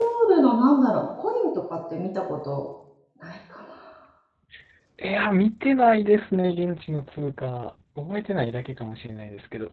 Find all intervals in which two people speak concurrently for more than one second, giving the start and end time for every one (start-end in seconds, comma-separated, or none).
none